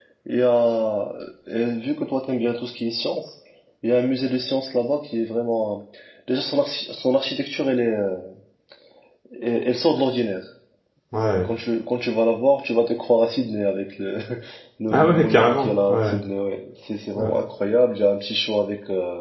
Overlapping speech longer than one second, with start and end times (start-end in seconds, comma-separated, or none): 14.9-16.1